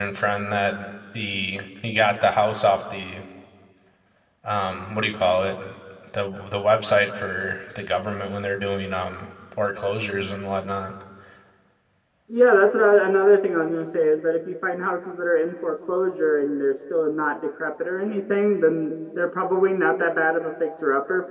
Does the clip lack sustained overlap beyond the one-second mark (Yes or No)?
Yes